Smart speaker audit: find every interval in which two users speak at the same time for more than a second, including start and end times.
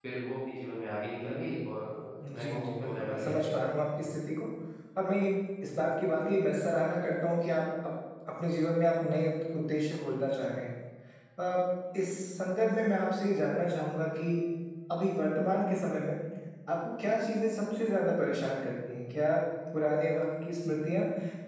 2.3-3.5

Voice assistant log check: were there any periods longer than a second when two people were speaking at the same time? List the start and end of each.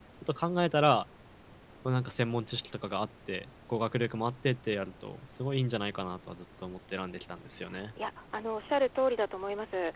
none

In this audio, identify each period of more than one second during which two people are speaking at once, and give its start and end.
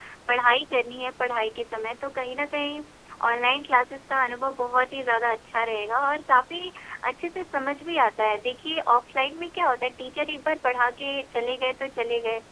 none

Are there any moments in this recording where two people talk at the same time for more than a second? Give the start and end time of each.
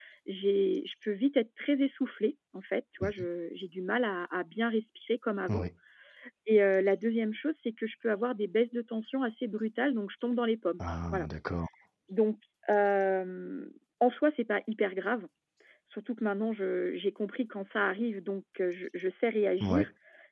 none

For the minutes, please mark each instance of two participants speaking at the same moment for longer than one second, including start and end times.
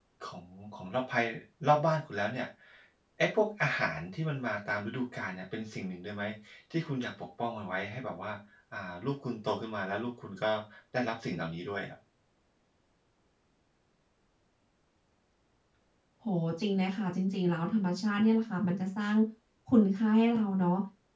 none

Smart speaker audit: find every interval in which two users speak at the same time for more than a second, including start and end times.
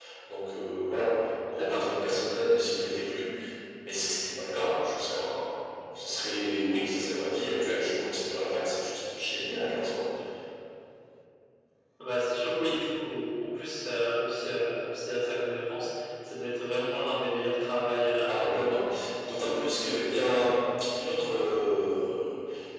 none

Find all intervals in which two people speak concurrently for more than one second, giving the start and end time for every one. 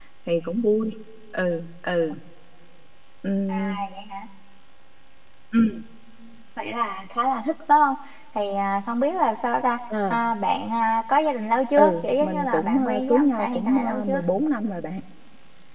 11.8-14.2

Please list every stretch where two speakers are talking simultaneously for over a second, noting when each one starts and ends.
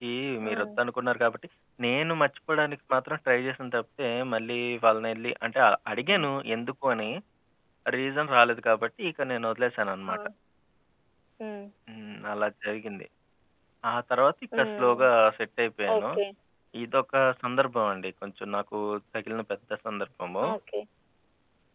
none

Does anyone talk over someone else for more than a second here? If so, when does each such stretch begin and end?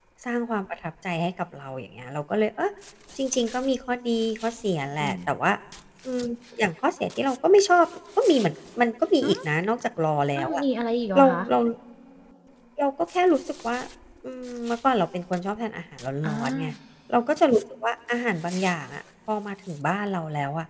none

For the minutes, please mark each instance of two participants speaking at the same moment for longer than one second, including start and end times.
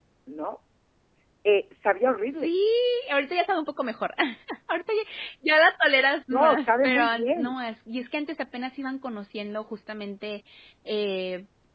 6.3-7.6

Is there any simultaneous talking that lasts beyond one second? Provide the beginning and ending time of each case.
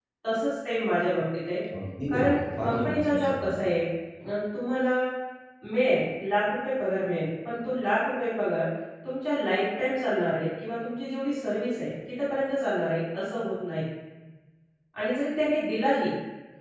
2.1-3.6

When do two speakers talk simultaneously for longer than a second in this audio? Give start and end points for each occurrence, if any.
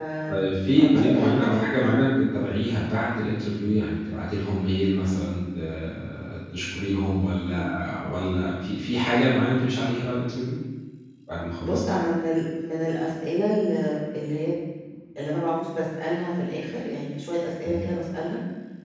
0.8-2.0

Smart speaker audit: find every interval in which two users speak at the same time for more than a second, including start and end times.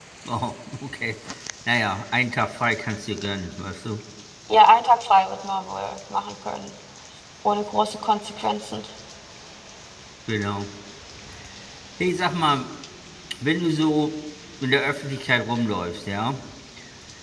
none

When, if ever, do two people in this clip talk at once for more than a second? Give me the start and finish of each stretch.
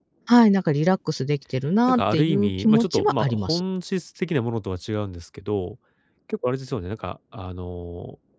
1.9-3.6

